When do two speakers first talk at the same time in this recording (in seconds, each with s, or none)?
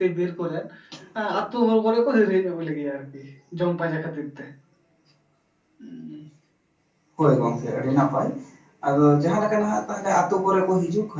none